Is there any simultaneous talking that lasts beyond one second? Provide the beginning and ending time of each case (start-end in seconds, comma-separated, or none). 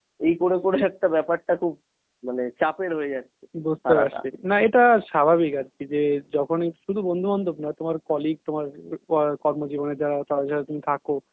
none